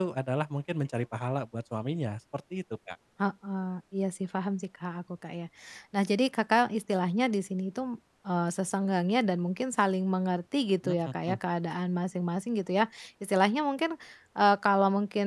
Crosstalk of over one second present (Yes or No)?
No